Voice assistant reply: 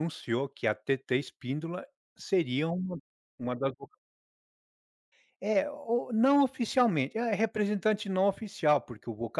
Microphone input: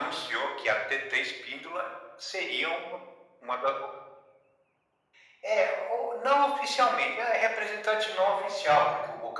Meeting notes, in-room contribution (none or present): none